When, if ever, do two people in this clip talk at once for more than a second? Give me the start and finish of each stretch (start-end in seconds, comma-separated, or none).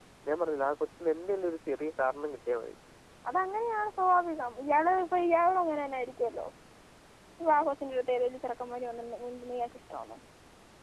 none